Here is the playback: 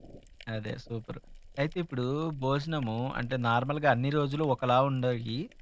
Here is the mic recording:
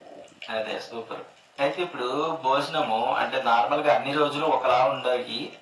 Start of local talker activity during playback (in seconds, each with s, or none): none